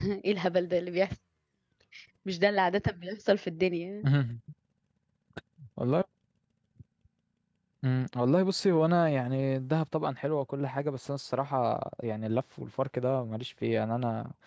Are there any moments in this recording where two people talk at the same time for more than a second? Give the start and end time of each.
none

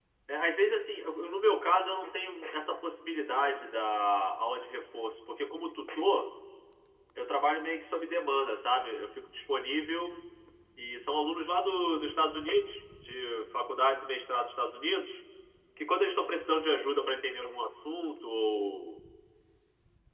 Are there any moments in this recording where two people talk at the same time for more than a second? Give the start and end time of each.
none

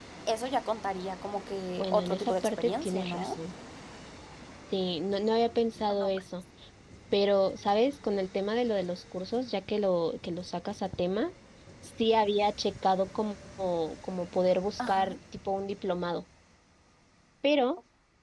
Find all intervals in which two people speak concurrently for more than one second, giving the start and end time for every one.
1.8-3.4

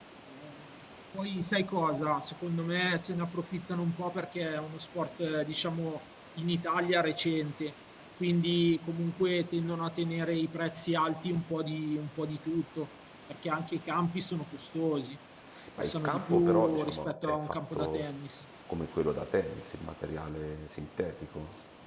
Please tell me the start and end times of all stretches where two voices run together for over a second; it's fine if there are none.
15.8-18.1

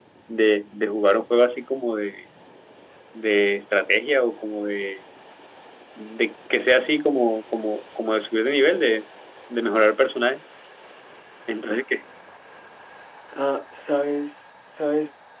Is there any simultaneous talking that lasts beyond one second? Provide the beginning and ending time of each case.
none

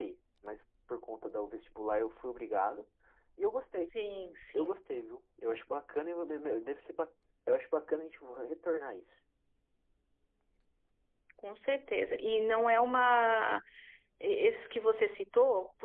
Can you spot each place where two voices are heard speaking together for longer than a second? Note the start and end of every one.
none

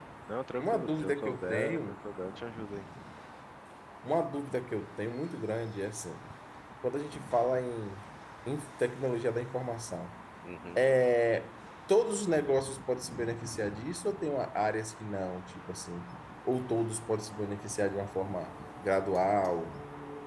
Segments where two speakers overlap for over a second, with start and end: 0.6-1.9

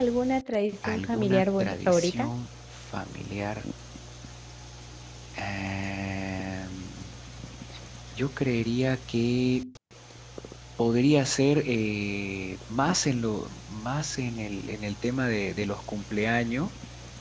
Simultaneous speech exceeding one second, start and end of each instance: 0.9-2.3

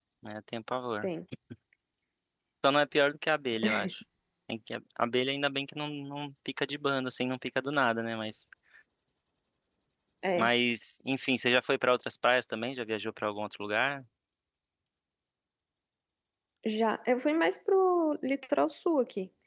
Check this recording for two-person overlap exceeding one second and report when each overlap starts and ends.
none

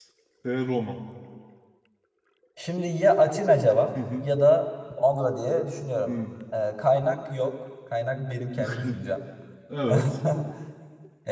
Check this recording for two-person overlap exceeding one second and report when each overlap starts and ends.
none

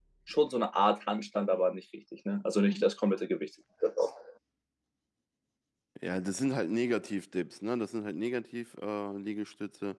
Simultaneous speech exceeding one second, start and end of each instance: none

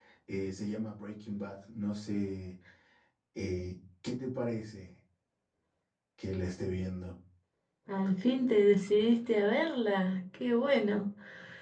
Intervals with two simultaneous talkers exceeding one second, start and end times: none

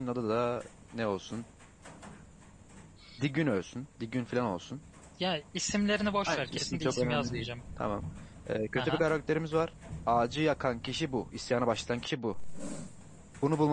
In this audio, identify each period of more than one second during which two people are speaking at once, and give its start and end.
6.3-7.5

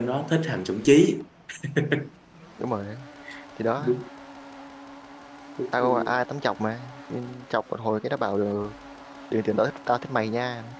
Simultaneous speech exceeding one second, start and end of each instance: none

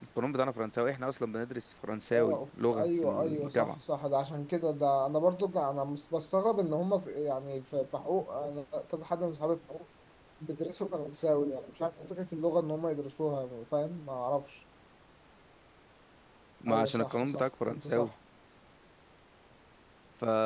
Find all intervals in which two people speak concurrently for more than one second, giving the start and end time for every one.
2.1-3.7, 16.7-18.1

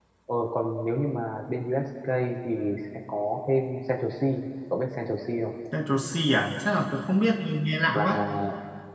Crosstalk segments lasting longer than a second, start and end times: none

